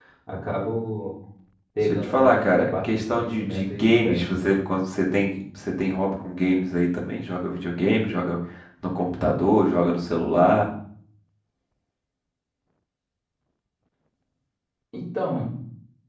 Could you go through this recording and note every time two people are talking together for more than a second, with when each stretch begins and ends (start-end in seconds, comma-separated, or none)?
1.8-4.3